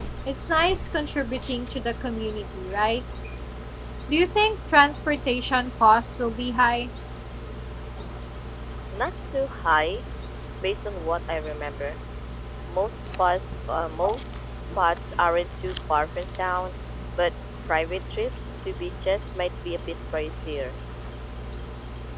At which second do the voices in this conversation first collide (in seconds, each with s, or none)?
none